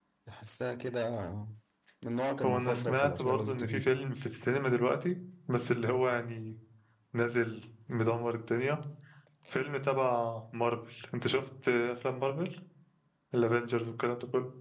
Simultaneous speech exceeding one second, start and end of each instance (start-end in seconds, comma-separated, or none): 2.4-3.9